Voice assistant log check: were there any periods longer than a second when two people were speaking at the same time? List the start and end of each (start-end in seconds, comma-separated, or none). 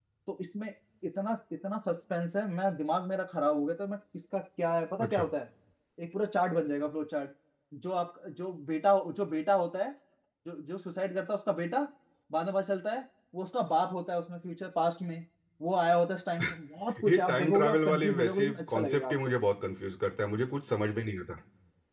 17.1-19.3